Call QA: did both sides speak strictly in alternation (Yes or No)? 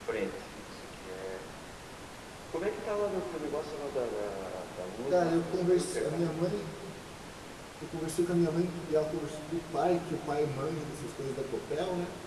No